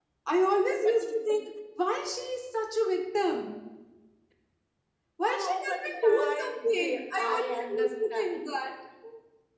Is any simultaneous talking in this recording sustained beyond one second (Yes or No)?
Yes